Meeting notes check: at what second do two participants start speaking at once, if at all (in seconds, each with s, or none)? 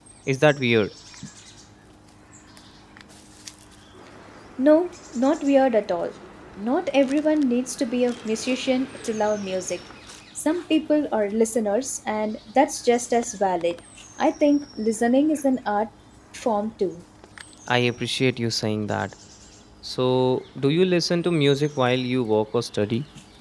none